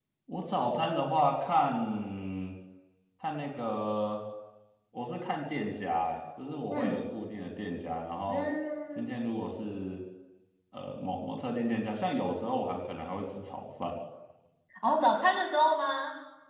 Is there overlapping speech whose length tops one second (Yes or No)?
No